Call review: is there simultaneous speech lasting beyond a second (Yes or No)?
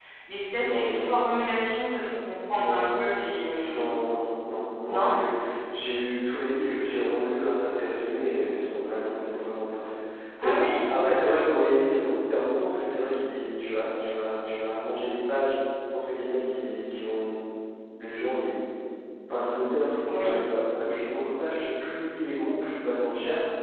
No